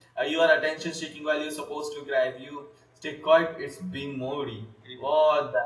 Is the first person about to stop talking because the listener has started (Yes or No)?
No